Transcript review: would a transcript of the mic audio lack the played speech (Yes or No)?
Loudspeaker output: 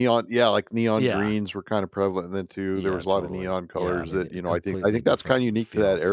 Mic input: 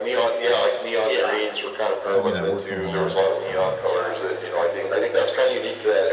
No